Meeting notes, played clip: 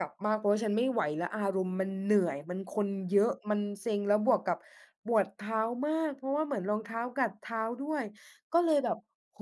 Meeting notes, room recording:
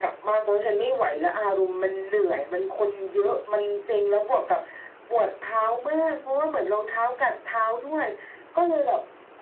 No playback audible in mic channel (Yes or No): No